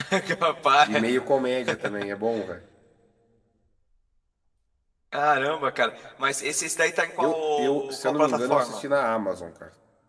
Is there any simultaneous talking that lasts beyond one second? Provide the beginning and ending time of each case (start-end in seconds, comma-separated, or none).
7.2-8.8